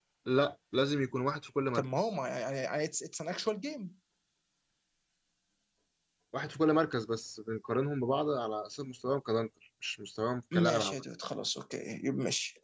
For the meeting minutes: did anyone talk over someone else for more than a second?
No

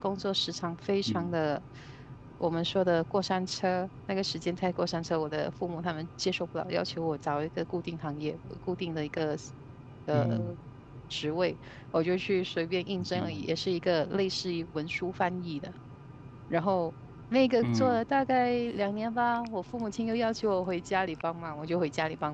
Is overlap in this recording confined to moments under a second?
Yes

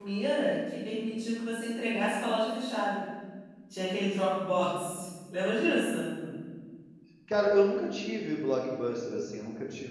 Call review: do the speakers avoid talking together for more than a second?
Yes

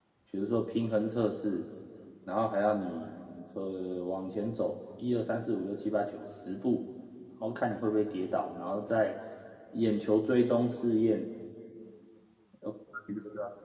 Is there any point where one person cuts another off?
No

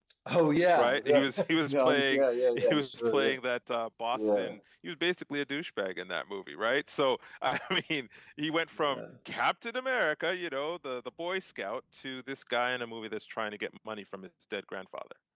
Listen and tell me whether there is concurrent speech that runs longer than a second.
Yes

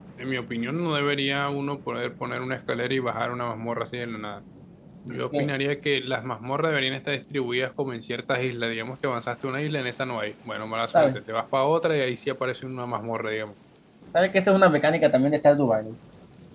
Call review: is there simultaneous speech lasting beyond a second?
No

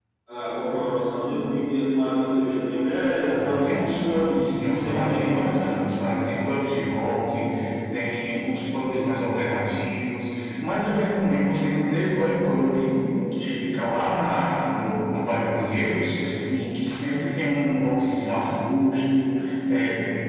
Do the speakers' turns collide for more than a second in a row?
Yes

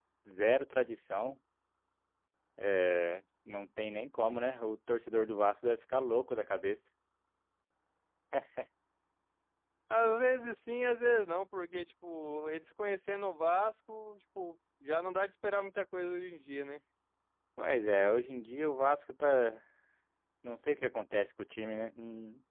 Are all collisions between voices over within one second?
Yes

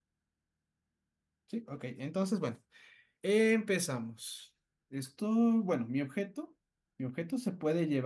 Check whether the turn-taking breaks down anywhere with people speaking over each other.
No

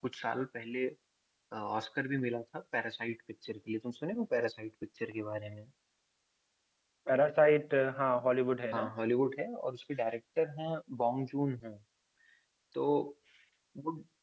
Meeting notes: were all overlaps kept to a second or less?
Yes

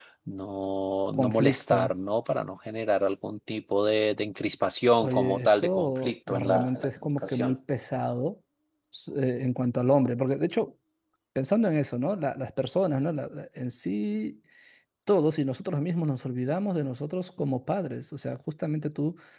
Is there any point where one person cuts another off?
Yes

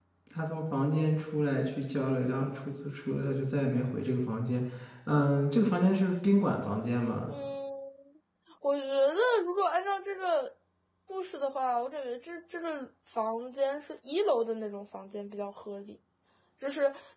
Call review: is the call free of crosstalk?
Yes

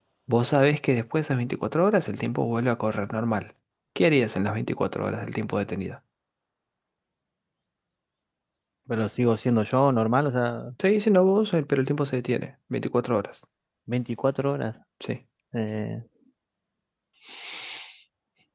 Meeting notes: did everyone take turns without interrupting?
Yes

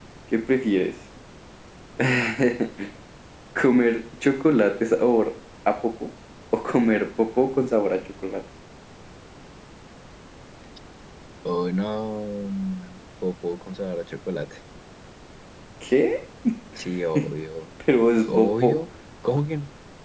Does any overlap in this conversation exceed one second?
No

